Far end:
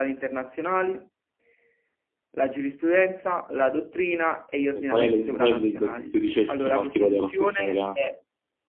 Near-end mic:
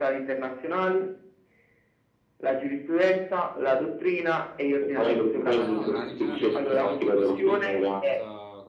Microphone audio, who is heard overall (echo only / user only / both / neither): both